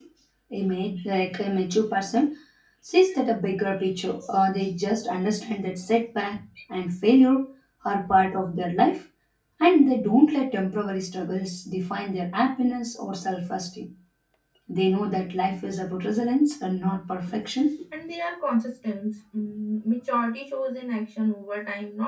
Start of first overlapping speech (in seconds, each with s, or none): none